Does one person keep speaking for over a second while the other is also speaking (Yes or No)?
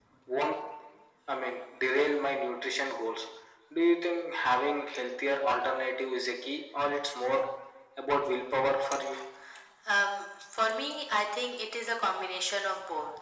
No